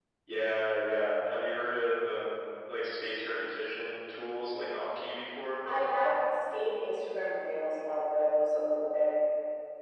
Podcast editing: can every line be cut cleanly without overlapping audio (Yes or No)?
Yes